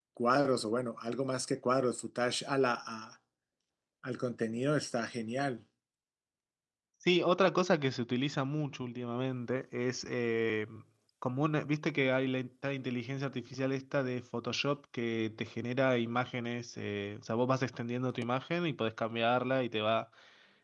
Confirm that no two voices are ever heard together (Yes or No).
Yes